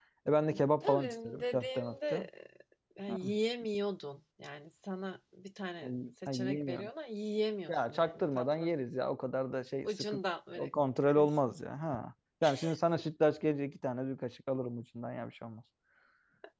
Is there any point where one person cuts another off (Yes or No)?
Yes